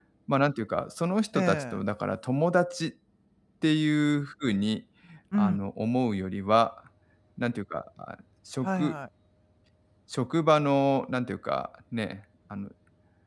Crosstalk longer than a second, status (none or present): none